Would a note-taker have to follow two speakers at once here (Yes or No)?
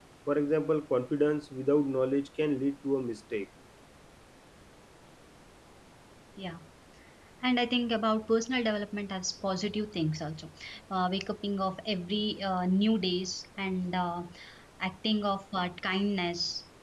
No